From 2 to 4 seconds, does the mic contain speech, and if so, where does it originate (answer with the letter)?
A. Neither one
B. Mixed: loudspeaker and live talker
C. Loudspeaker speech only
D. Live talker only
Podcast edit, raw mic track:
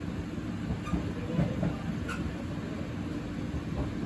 A